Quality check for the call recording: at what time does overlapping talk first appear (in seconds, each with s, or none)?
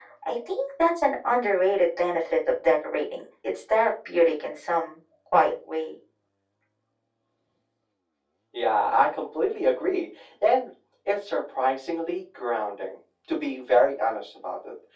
none